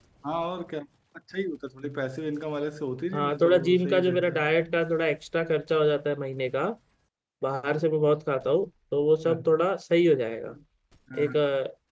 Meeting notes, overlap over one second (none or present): present